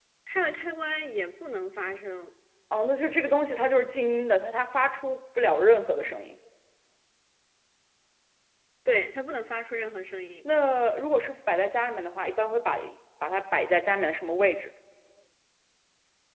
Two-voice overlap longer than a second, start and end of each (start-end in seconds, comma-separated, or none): none